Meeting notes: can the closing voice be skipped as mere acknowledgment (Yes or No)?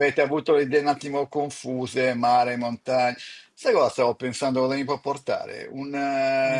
Yes